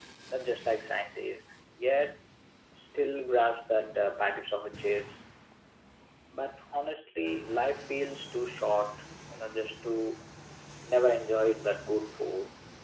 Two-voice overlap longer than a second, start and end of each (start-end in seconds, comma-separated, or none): none